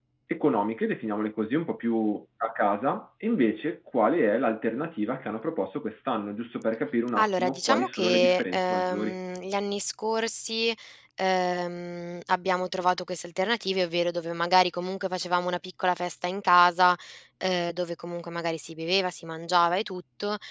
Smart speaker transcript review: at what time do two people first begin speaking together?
7.2 s

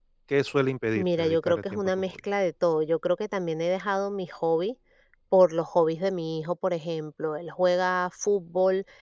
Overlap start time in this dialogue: 0.9 s

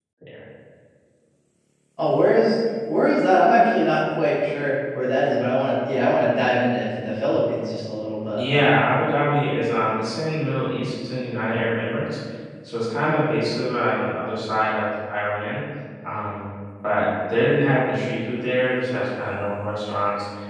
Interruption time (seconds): none

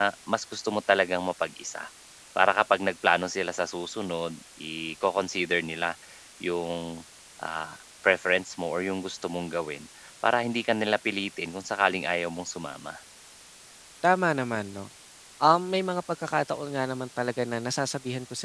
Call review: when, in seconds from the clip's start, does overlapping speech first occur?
none

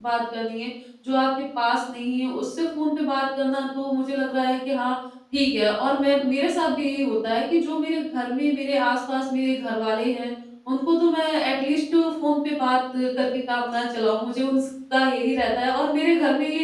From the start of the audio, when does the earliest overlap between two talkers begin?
none

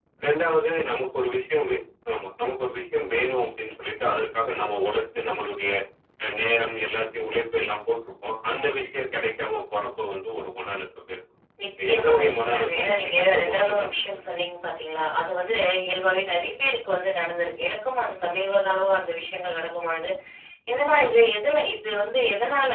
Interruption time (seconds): 11.6 s

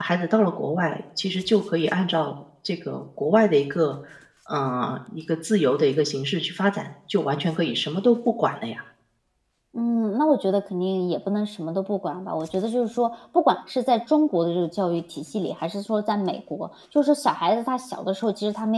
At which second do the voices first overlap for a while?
none

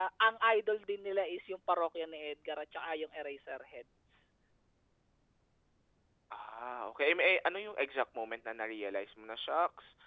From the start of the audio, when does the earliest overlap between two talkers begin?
none

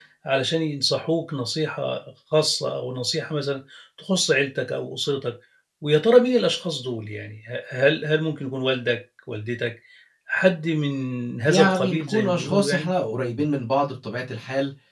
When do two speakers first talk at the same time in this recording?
11.4 s

